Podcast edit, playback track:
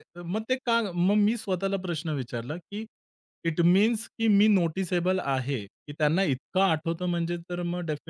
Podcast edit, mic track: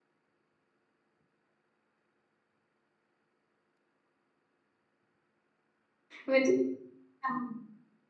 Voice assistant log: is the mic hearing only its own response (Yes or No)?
No